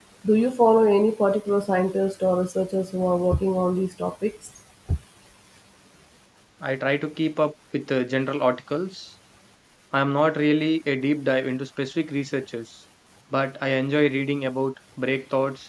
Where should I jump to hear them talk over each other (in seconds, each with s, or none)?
none